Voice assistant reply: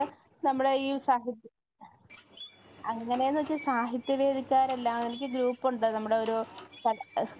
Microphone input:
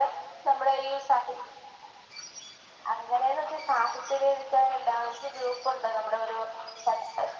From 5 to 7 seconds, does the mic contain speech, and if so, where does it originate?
echo only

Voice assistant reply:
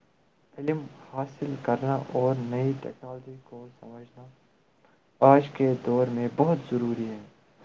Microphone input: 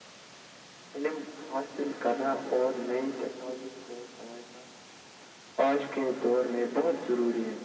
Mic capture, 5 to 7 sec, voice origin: echo only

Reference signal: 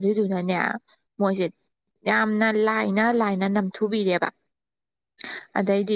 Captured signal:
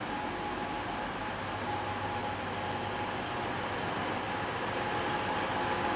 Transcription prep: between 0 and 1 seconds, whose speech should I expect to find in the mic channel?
neither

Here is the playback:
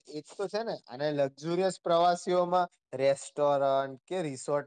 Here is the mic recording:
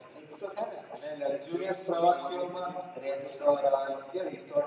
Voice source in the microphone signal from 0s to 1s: echo only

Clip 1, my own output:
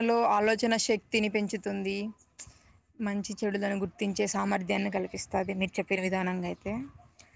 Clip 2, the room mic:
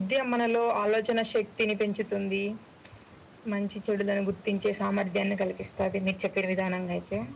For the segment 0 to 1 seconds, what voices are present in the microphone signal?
echo only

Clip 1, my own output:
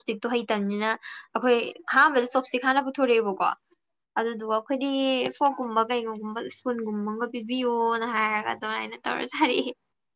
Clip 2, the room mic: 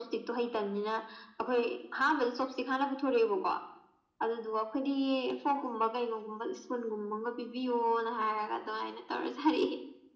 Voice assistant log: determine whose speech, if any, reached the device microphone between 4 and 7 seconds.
echo only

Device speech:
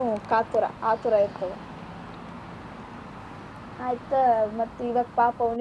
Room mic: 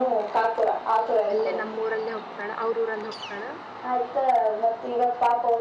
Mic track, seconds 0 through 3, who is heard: both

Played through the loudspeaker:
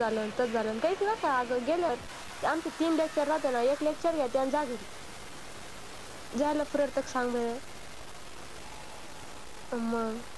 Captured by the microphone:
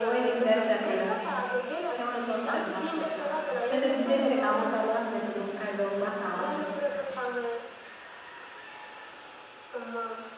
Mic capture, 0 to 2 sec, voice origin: both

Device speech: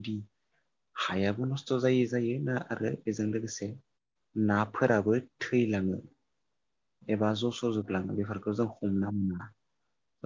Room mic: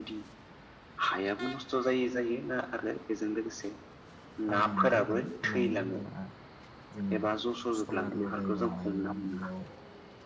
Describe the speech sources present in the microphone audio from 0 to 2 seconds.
echo only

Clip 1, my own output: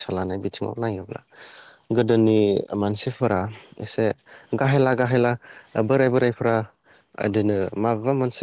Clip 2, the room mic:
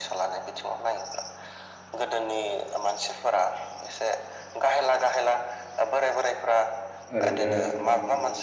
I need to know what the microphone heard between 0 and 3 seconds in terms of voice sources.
echo only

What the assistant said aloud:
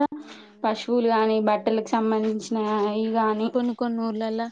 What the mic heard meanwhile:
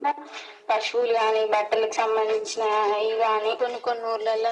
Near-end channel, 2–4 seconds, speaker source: echo only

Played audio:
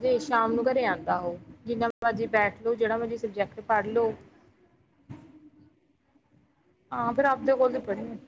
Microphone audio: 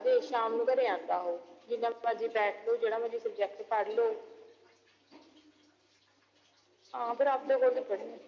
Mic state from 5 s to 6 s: neither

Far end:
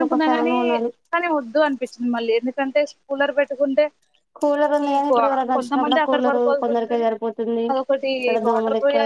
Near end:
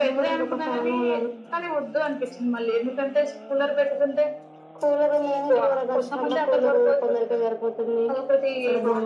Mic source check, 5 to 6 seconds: echo only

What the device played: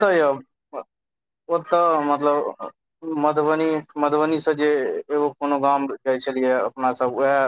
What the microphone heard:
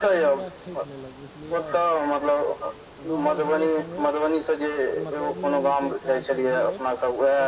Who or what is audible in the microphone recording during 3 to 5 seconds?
both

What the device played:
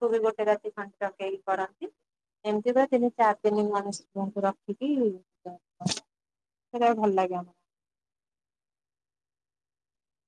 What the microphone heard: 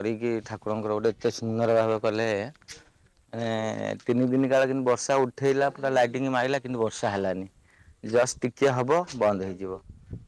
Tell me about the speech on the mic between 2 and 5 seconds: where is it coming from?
user only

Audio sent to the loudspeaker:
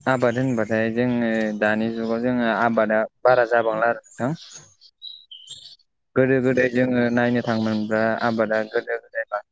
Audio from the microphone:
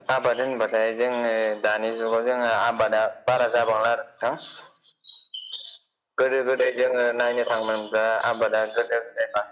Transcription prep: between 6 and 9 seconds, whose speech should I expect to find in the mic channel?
echo only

